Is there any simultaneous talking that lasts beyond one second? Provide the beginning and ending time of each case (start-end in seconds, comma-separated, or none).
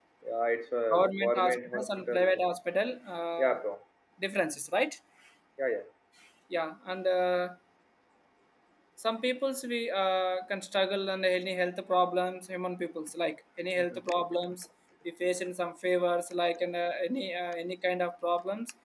0.9-2.4